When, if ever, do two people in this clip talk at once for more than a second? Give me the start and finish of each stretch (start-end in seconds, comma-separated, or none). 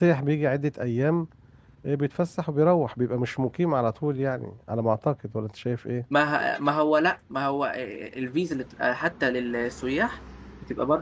none